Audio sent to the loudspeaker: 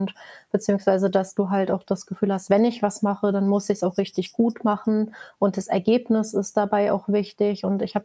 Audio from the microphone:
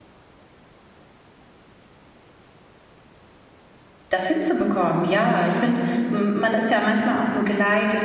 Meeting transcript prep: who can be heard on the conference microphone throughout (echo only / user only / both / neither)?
user only